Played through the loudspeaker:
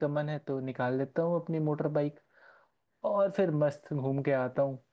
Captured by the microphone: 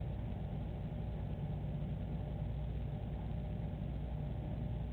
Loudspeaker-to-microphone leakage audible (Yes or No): No